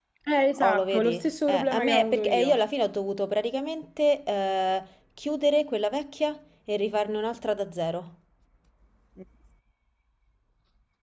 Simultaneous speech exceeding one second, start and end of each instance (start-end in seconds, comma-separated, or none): 0.6-2.6